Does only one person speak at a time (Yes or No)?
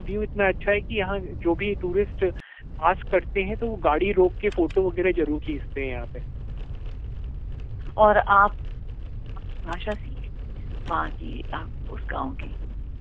Yes